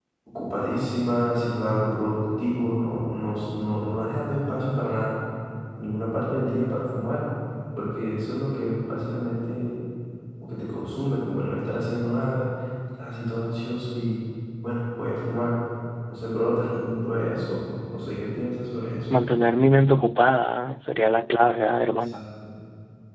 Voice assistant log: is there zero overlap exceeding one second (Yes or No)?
Yes